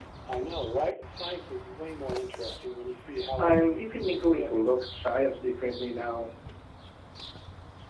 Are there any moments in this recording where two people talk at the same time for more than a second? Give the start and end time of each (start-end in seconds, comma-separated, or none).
3.4-4.7